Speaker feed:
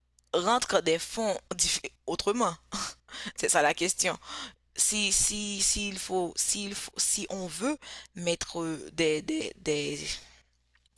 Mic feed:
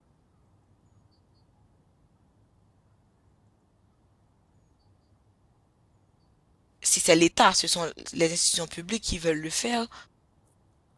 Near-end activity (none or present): present